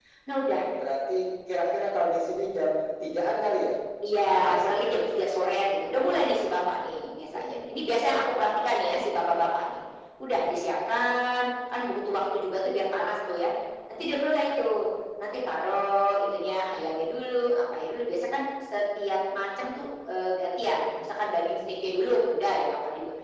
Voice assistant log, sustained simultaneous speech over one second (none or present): present